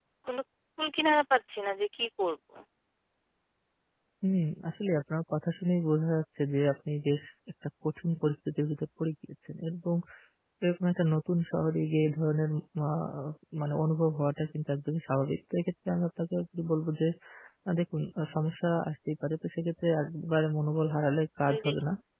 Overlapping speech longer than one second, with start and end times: none

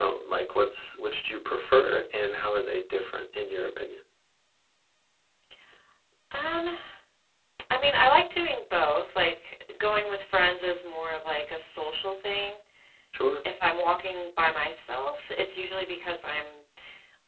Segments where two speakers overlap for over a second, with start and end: none

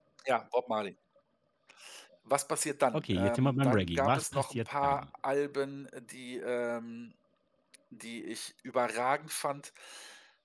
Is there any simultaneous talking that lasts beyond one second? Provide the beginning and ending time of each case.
2.9-5.0

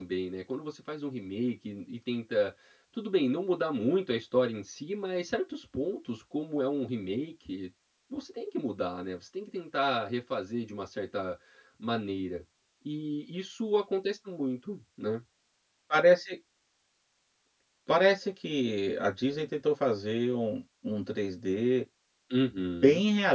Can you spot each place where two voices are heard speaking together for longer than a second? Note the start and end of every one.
none

